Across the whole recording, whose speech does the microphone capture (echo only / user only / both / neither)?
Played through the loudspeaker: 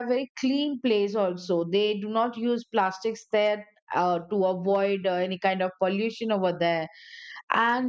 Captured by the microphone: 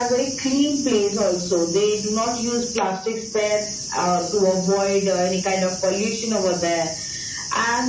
echo only